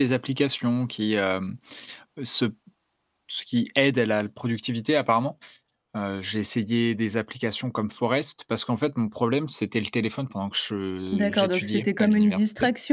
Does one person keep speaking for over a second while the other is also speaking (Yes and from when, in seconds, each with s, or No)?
Yes, from 11.1 s